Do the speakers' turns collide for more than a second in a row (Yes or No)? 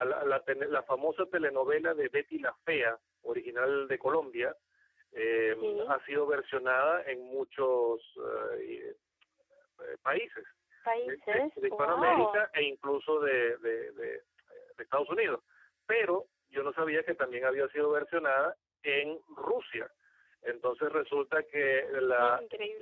Yes